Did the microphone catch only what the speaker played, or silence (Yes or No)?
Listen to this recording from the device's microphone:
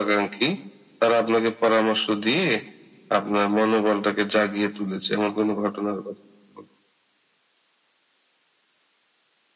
Yes